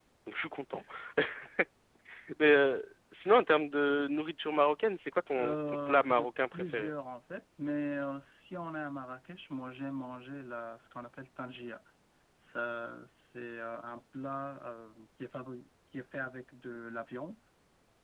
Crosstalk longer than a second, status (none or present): present